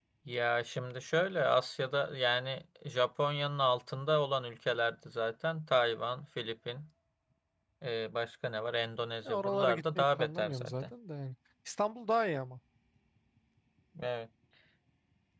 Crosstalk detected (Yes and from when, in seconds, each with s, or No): Yes, from 9.2 s